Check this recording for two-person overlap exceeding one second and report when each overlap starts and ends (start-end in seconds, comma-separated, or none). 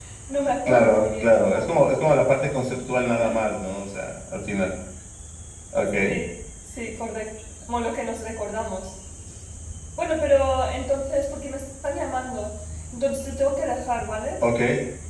0.7-1.9